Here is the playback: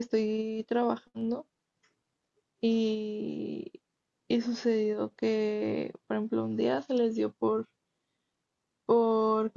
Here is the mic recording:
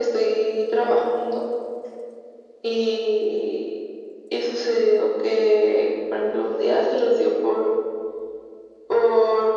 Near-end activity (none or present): none